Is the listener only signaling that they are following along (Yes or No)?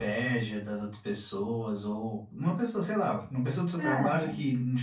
Yes